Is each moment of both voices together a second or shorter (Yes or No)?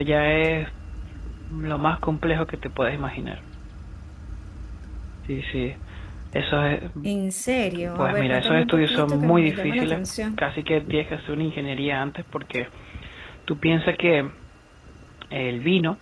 No